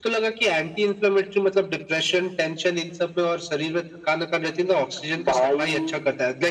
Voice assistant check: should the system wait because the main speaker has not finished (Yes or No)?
Yes